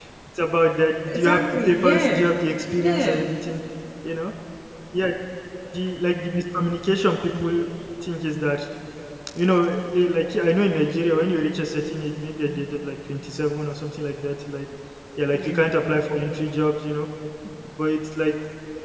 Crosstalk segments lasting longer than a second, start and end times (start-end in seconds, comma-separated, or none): 1.0-2.3